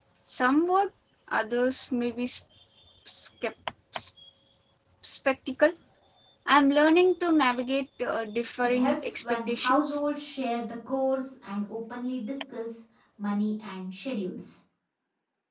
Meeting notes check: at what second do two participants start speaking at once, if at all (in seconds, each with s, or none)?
8.6 s